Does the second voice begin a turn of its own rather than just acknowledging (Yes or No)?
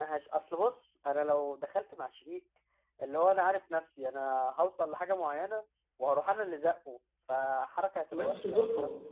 Yes